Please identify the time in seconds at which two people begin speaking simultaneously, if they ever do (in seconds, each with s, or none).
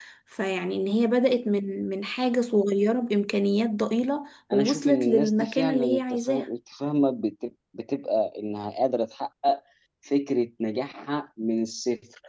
4.5 s